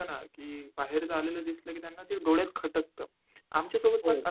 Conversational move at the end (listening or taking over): listening